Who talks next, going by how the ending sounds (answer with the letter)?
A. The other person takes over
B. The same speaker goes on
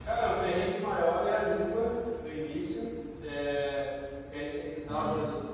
B